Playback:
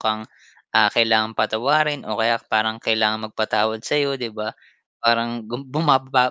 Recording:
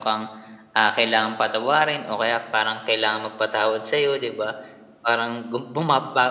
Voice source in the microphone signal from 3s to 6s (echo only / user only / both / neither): echo only